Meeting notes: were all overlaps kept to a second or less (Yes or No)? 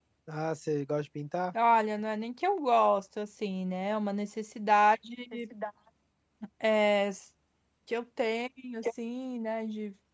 Yes